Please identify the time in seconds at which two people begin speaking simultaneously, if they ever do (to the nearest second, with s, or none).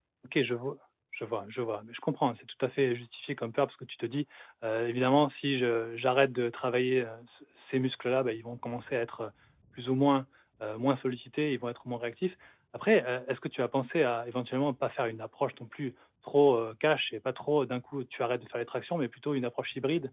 none